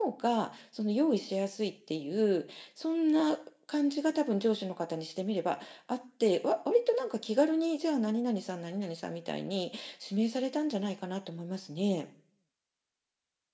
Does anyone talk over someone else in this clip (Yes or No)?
No